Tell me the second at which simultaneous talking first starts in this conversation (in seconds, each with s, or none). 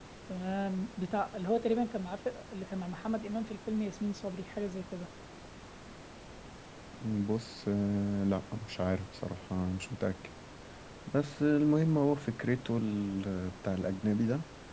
none